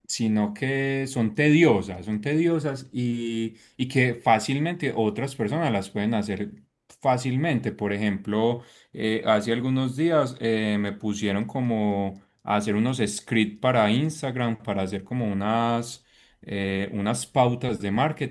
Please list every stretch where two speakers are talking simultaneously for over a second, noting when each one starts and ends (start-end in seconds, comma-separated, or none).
none